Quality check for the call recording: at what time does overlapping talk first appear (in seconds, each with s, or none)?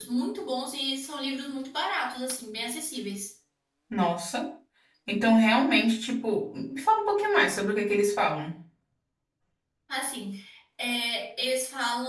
none